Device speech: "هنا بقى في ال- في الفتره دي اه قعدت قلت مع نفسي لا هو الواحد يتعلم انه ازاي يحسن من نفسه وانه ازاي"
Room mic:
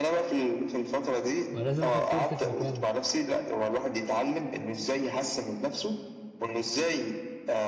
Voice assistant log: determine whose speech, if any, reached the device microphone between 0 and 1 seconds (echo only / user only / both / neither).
echo only